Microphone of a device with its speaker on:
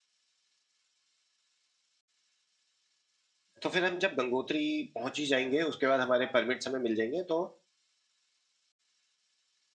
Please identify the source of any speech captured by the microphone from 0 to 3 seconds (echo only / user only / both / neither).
neither